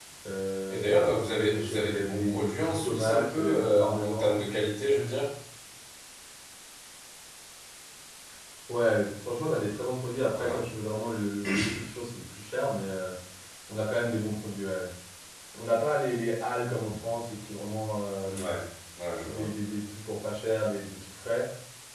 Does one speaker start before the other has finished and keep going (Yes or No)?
Yes